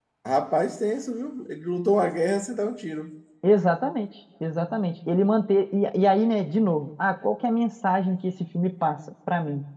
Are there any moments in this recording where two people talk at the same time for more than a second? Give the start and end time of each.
none

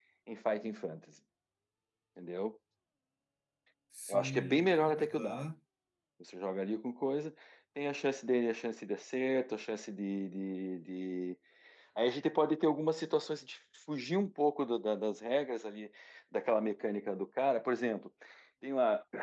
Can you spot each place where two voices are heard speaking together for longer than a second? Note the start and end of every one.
4.1-5.4

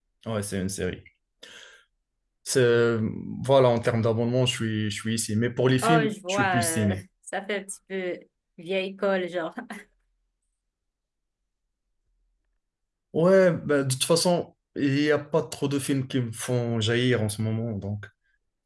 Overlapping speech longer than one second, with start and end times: 5.8-7.0

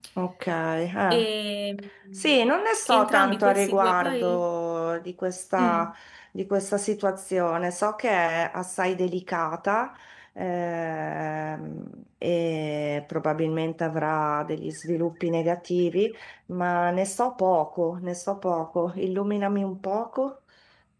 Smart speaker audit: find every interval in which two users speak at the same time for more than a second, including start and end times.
2.9-4.4

